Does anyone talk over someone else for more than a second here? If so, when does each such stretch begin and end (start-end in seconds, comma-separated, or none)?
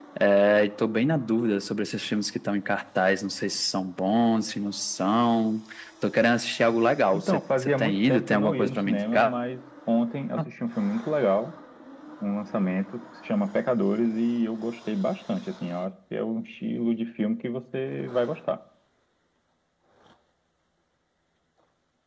7.1-9.3